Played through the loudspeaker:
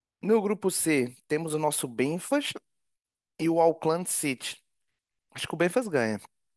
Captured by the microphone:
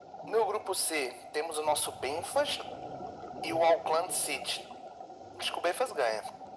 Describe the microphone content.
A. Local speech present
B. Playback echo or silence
B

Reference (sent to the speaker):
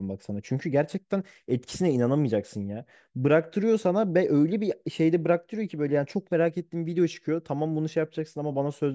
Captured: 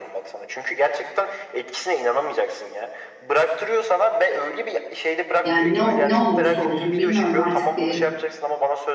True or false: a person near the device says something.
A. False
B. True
B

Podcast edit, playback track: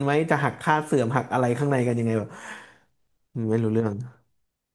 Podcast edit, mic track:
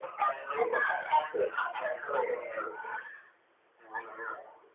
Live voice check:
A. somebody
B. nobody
B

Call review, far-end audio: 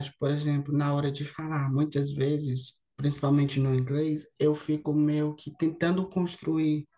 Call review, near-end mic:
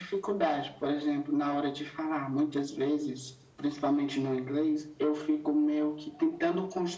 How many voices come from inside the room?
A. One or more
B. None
B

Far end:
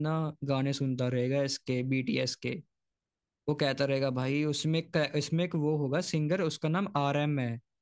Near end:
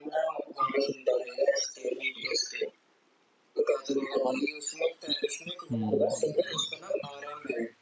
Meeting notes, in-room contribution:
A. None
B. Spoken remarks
B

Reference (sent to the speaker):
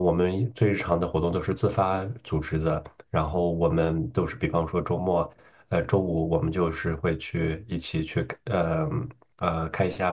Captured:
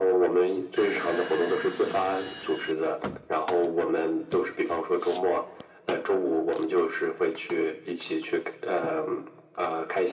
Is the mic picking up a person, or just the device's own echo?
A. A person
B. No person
B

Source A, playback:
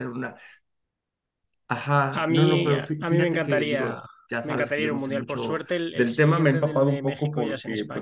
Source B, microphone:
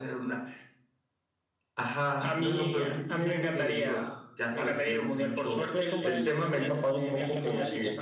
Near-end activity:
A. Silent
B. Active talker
B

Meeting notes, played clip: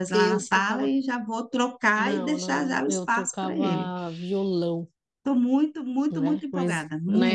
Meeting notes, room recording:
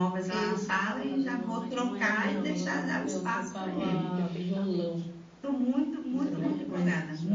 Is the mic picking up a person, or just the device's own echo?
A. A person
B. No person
A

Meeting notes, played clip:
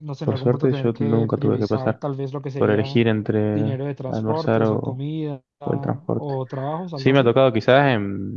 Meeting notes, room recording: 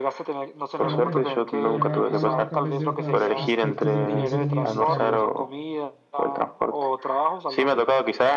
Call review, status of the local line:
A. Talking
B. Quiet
A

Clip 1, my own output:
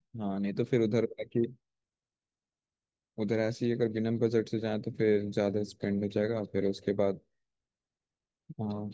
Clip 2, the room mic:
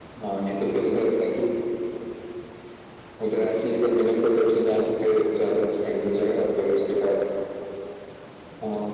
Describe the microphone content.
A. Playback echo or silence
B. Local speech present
A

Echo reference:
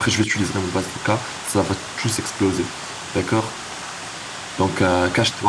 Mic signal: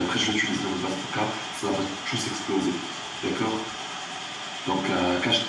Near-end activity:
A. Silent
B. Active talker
A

